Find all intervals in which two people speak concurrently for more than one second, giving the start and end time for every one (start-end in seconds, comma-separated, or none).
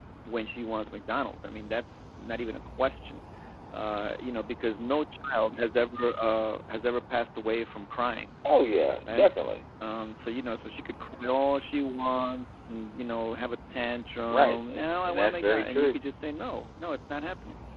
14.3-16.0